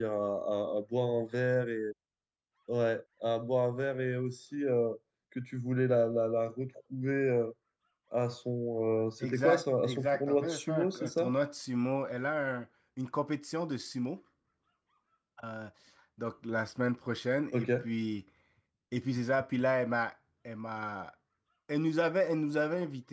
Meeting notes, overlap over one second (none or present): present